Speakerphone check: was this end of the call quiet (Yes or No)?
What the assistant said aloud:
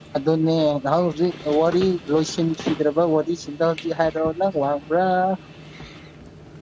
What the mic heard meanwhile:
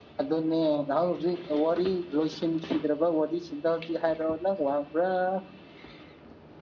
Yes